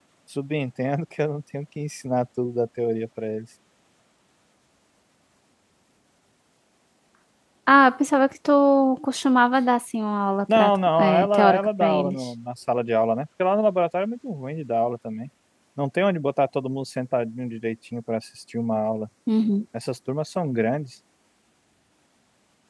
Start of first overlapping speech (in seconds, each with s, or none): 10.5 s